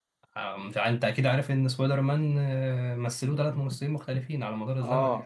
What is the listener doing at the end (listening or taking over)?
taking over